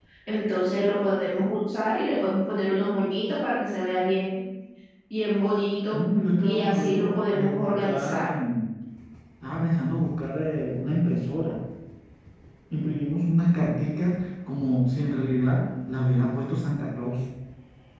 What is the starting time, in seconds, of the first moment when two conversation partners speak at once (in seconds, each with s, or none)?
6.4 s